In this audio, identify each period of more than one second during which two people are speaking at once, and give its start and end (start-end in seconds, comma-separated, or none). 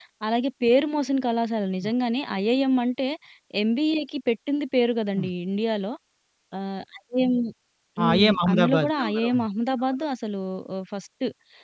8.0-9.4